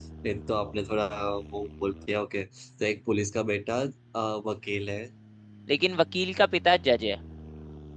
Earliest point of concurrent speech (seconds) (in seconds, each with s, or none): none